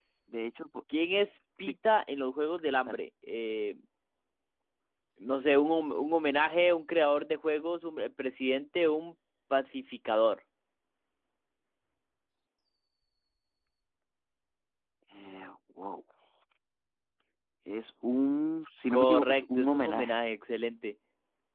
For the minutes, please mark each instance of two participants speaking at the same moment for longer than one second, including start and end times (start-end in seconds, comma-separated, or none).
18.9-20.1